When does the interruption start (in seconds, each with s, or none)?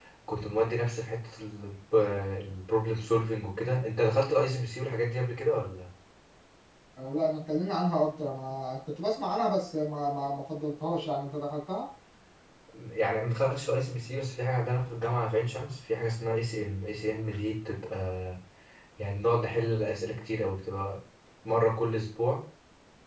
none